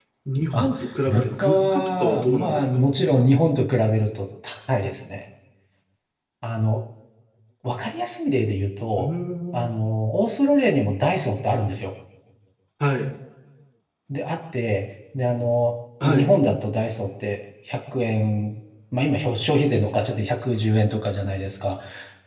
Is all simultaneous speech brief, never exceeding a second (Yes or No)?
No